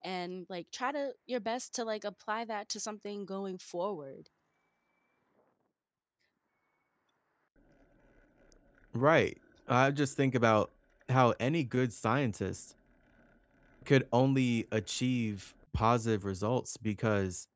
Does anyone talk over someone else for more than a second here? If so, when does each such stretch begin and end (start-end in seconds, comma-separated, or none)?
none